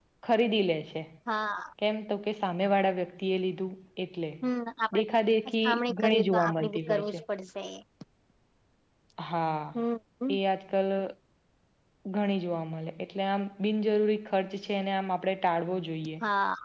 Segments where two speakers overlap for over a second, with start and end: 5.7-7.2

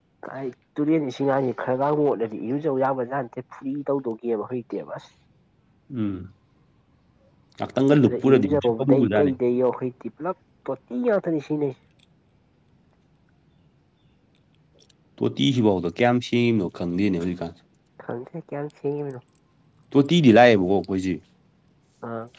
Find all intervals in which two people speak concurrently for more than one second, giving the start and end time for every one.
8.1-9.3

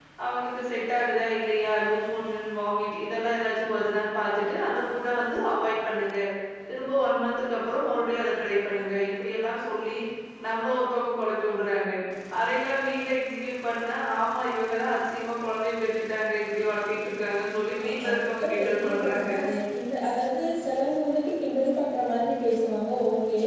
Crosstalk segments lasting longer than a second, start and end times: 17.8-19.3

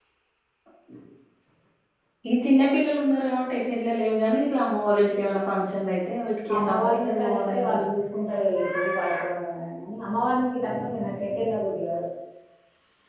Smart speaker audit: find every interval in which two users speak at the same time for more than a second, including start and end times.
6.5-7.8

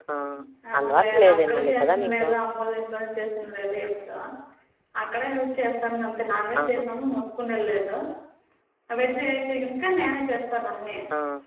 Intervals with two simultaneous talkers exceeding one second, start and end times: 0.8-2.3

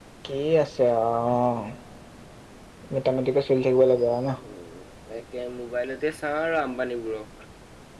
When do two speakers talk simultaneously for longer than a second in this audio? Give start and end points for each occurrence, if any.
none

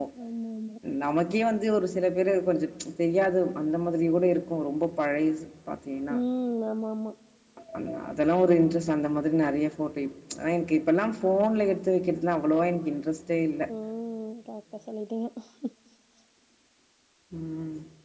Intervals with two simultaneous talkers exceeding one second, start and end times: none

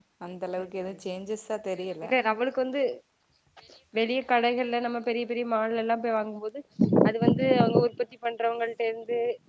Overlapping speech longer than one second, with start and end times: none

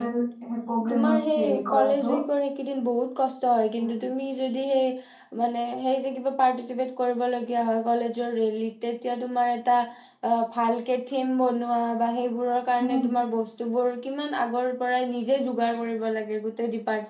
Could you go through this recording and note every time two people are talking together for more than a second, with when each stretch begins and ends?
0.9-2.1

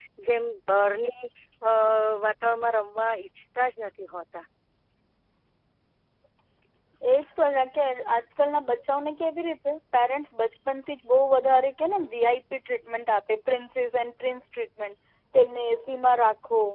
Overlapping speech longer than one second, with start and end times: none

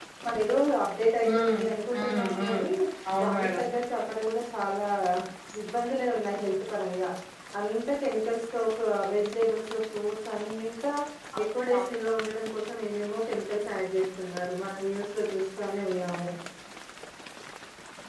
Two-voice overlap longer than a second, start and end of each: 1.3-2.6

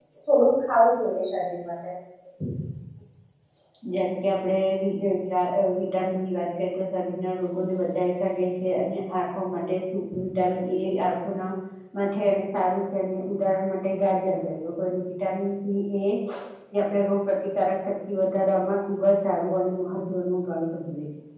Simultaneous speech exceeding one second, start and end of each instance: none

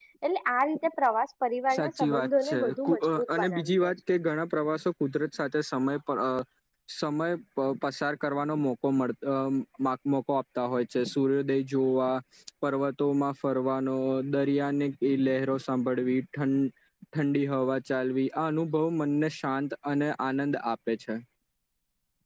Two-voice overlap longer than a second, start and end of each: 1.7-3.9

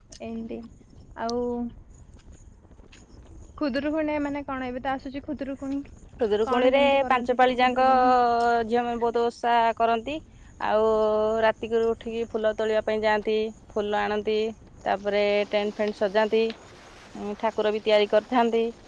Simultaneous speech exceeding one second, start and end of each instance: 6.5-8.1

